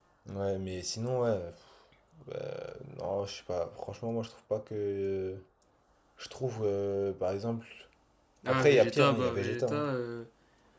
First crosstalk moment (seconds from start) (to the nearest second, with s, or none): 8 s